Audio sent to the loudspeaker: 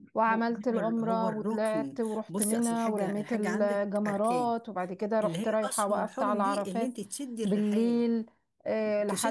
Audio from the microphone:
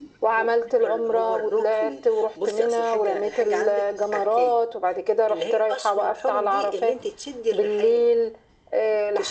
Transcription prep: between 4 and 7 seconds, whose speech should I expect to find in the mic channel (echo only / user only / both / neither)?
echo only